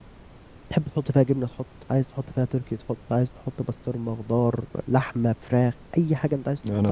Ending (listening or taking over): taking over